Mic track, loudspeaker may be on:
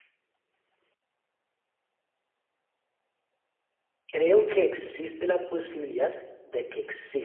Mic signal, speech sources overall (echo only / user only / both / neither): user only